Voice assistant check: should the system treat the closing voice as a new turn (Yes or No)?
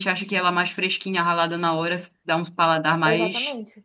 Yes